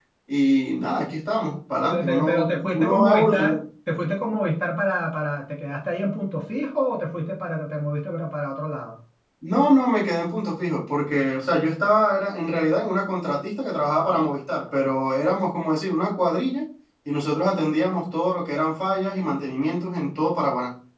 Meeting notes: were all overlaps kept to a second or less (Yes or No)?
No